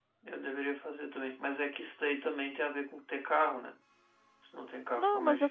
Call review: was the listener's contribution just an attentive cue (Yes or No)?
No